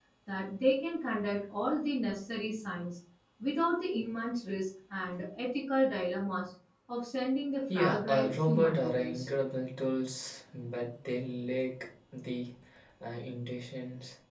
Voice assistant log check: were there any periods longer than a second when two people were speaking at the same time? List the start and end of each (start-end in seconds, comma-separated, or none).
7.7-9.3